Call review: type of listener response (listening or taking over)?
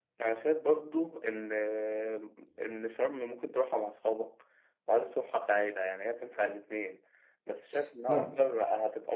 listening